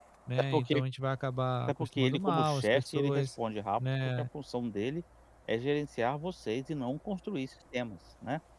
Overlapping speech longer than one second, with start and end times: 1.7-3.3

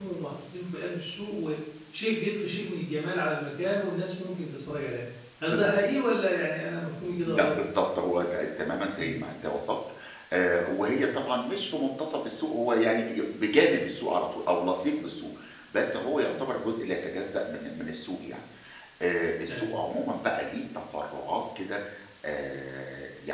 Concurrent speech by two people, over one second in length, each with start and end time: none

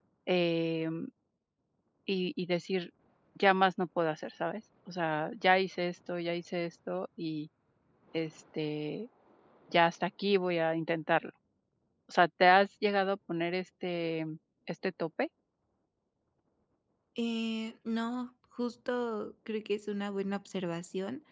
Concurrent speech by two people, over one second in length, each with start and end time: none

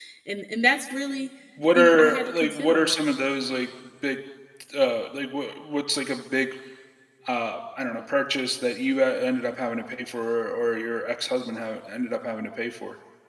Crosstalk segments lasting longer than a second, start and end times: 1.7-3.0

